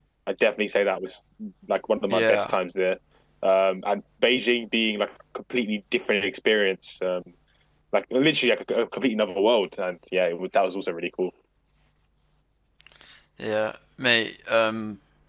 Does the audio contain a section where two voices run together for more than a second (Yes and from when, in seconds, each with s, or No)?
No